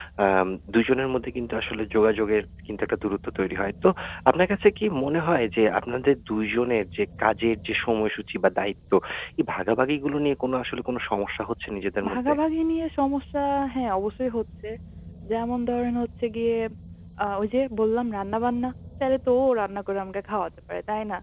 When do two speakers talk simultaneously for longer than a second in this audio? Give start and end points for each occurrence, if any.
none

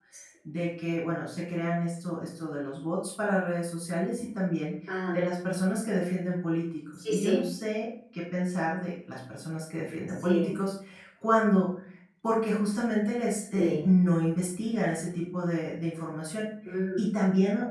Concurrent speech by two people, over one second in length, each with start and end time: none

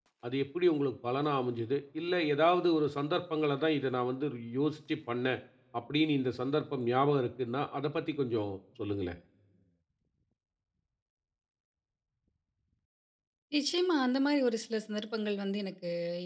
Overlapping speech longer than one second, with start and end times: none

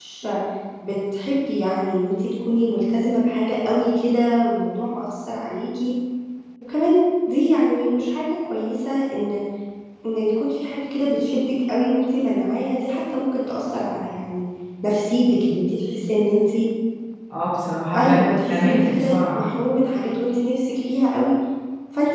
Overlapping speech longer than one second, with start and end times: 17.9-19.4

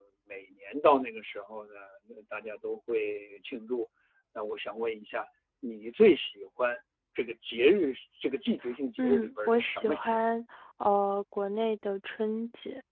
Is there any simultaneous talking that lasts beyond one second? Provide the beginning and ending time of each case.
9.0-10.3

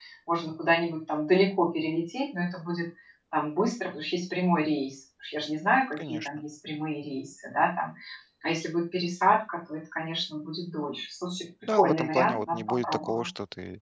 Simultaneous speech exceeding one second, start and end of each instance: 11.7-13.2

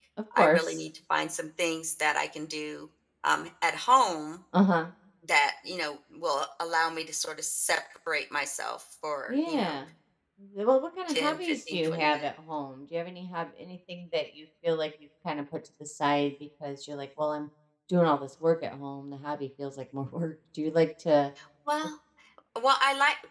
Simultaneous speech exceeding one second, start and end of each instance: 11.1-12.3

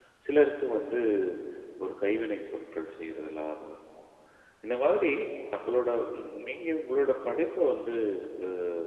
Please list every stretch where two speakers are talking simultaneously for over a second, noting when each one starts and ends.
none

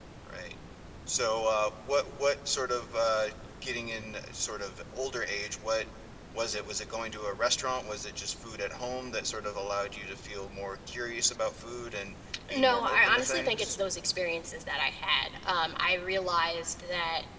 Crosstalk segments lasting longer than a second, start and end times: 12.5-13.8

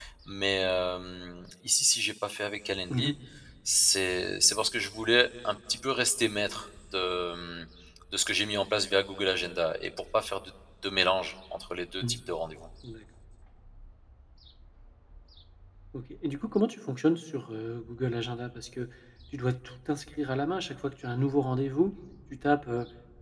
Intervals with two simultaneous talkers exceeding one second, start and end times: none

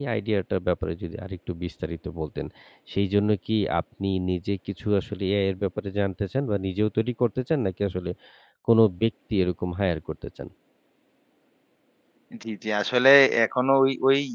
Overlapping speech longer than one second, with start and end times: none

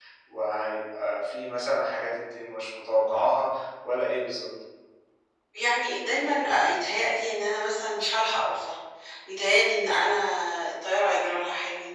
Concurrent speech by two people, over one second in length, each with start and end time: none

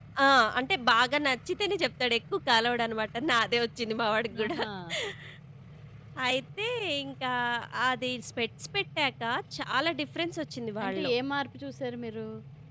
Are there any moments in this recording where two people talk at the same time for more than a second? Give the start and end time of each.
none

